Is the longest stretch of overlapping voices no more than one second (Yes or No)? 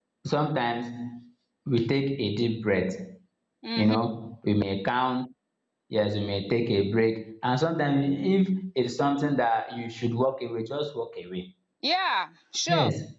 Yes